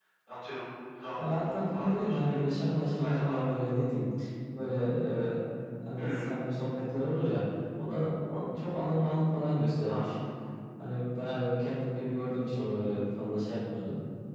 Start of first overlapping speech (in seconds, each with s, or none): 1.2 s